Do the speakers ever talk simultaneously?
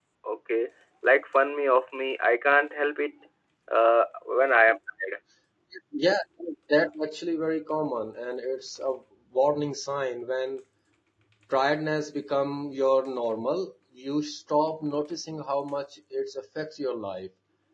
No

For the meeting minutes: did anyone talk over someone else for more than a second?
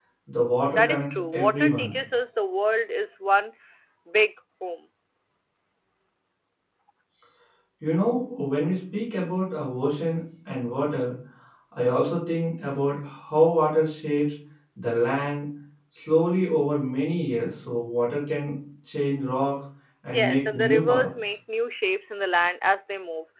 Yes, from 0.7 s

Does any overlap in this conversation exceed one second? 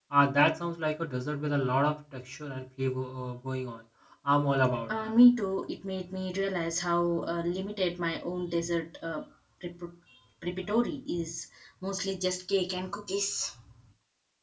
No

